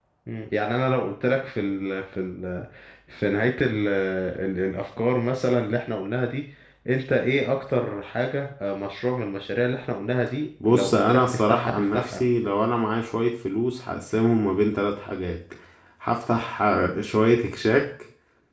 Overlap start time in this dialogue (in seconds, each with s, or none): 10.6 s